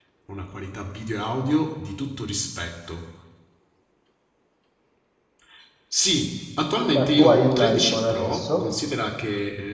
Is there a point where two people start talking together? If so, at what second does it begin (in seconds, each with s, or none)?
6.9 s